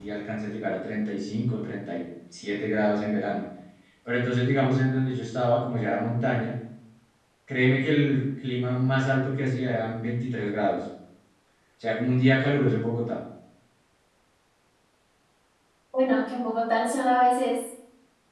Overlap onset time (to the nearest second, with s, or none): none